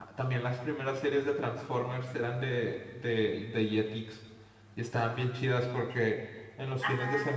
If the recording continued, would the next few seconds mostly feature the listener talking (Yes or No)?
No